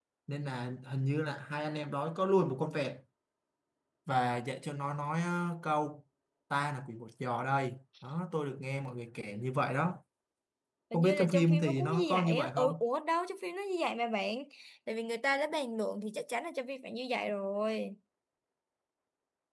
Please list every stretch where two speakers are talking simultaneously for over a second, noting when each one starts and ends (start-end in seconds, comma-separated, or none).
10.9-12.8